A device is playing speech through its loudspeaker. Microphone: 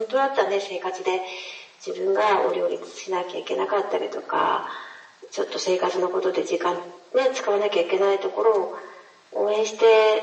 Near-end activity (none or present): none